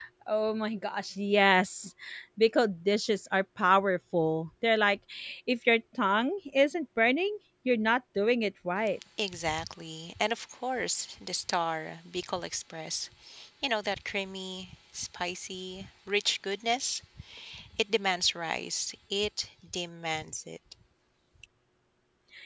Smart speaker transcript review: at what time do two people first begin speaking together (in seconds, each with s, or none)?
none